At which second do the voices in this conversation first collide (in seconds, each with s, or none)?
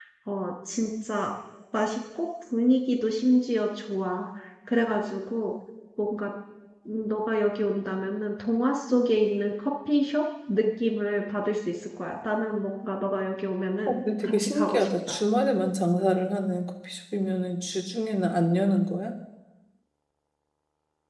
13.9 s